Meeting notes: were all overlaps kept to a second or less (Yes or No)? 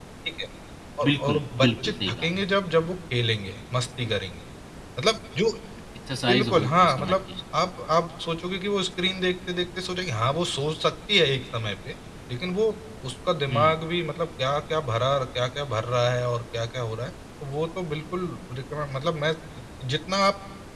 No